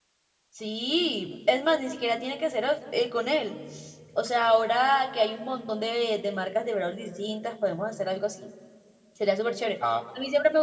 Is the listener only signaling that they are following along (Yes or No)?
Yes